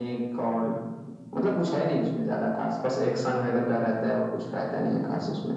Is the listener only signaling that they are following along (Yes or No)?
No